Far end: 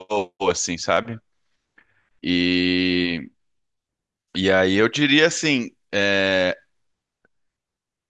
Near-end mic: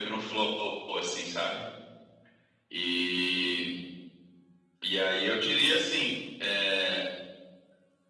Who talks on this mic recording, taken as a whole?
echo only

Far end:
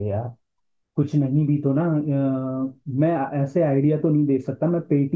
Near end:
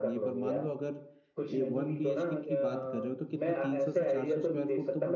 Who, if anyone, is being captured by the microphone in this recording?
both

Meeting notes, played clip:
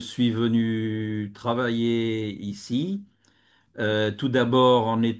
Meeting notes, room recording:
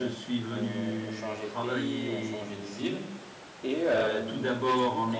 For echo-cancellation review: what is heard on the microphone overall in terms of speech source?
both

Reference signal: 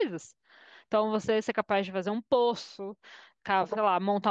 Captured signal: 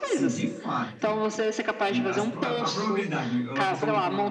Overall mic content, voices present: both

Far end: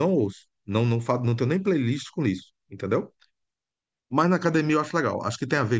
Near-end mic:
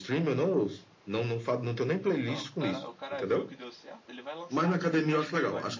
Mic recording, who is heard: both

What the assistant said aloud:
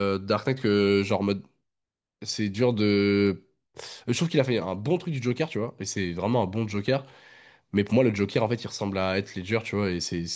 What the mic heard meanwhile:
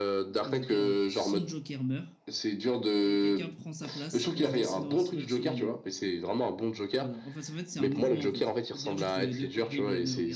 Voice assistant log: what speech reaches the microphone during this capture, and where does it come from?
both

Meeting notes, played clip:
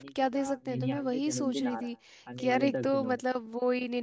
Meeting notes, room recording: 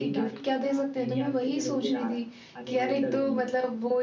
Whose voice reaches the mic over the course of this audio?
echo only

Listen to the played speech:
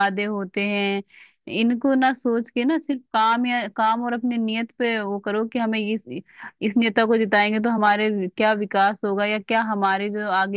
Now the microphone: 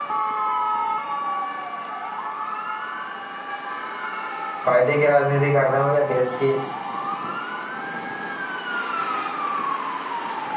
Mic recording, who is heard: user only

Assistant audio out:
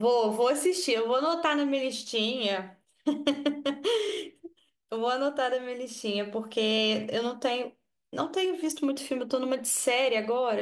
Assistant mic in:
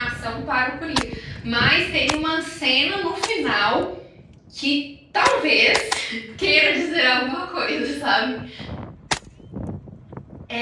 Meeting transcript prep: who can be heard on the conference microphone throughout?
user only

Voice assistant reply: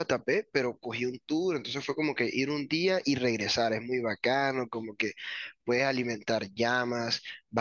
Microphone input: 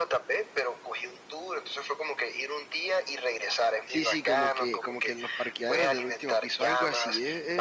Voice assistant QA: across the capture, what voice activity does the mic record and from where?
both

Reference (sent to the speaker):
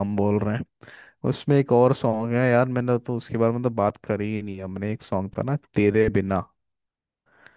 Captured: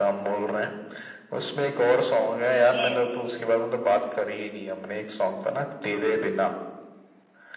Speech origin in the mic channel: both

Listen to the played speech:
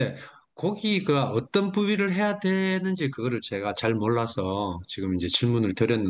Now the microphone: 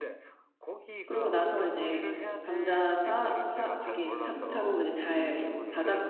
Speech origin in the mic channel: both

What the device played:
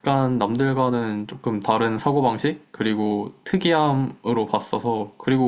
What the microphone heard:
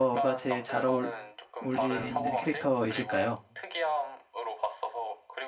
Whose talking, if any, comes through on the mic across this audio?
both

